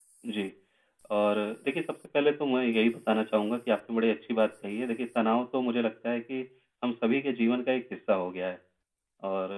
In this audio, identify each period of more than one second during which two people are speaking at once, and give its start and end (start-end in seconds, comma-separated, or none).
none